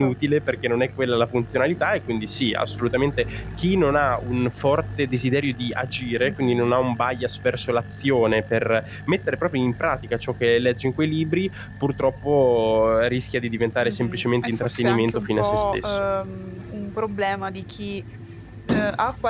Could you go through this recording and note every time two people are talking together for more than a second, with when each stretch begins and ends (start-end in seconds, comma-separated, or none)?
13.8-16.1